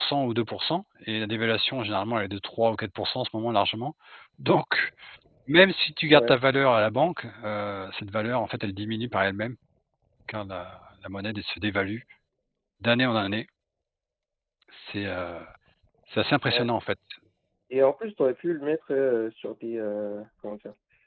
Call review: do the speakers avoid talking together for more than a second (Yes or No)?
Yes